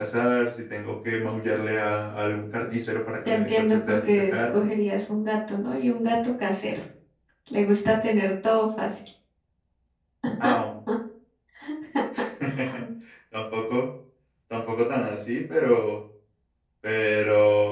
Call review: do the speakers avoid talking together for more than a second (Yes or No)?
No